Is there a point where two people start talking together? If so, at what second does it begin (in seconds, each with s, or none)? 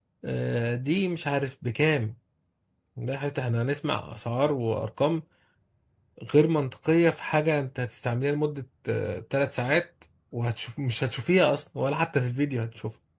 none